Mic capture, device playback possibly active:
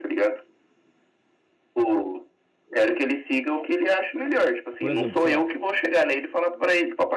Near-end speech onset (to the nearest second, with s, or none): 5 s